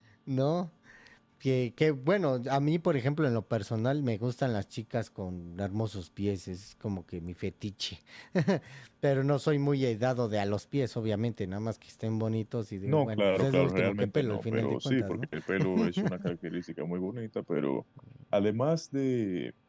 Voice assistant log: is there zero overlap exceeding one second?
No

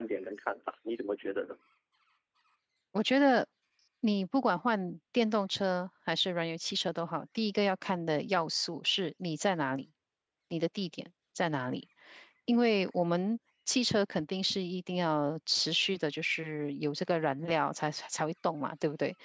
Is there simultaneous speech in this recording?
No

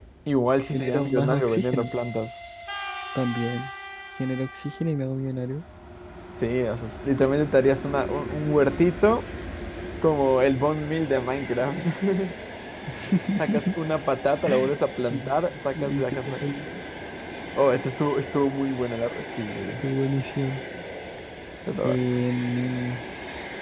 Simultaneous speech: Yes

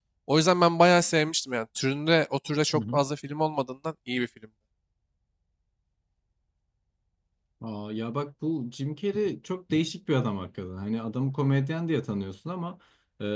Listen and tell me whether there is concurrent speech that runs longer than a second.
No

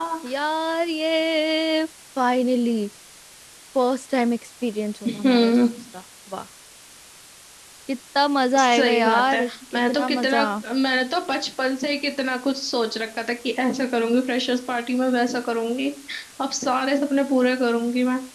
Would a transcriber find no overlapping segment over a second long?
No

